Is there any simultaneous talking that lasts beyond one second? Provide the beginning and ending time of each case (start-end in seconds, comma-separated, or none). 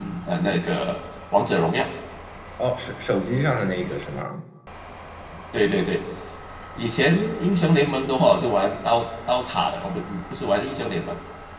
none